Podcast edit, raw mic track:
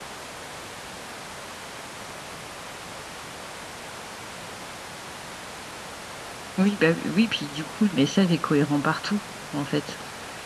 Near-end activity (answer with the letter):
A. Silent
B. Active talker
B